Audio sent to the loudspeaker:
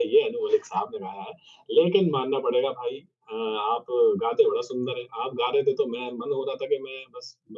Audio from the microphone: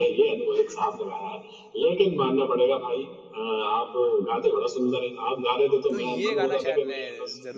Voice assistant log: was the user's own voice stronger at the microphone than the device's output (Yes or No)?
No